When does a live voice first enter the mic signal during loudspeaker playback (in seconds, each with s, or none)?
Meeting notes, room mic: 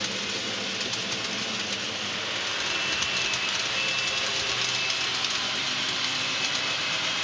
none